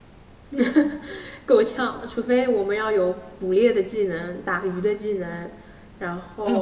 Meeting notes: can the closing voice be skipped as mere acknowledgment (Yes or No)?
No